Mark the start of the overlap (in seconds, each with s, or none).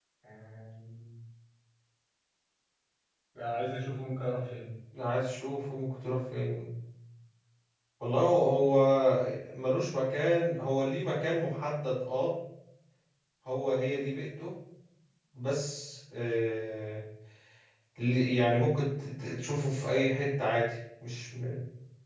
none